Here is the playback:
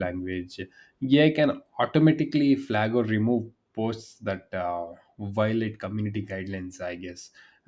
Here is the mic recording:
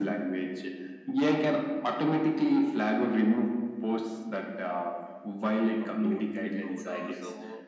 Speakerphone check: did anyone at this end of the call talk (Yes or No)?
Yes